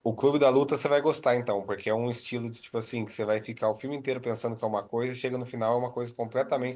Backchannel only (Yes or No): Yes